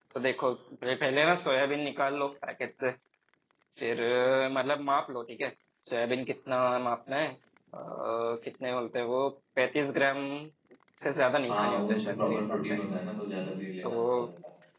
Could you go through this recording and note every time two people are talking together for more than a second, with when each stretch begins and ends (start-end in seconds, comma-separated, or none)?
11.5-12.8